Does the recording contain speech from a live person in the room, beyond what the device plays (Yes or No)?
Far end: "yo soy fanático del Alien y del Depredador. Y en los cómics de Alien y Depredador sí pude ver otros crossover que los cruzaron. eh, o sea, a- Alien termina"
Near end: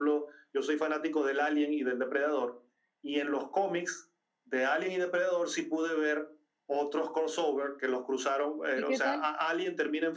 Yes